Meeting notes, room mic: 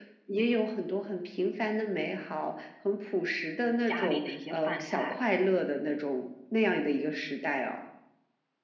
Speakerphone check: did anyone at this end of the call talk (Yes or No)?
Yes